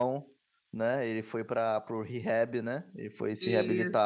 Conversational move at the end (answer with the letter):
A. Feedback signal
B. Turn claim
B